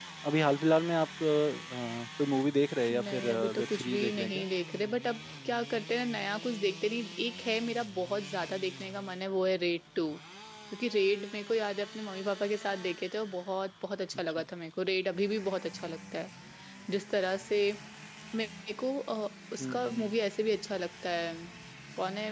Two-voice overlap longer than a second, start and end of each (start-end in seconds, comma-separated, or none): 2.9-4.4